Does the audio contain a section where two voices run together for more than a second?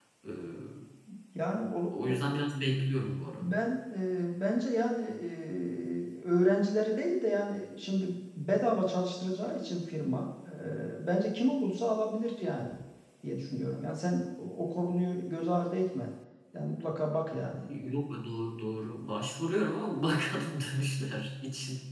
No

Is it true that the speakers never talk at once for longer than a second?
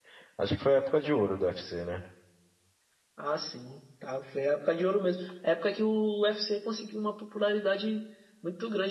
Yes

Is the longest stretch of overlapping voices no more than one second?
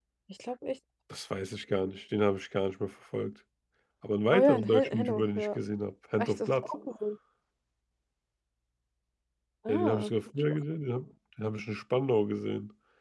No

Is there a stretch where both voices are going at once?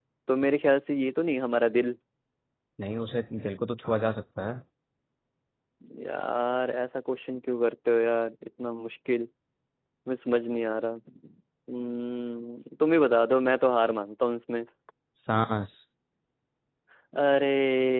No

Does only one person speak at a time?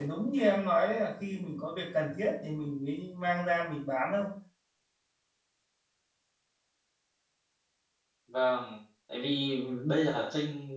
Yes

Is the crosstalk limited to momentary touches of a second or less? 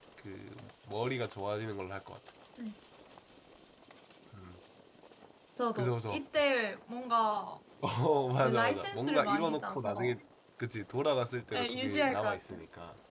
No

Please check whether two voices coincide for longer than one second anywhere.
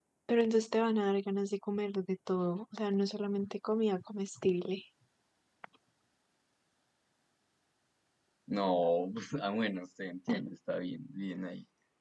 No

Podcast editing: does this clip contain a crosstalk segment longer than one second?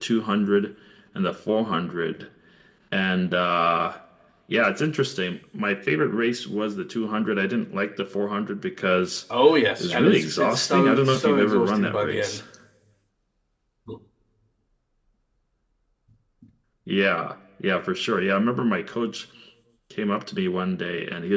Yes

